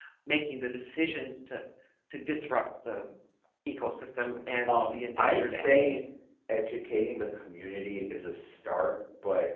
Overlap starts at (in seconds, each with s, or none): 4.7 s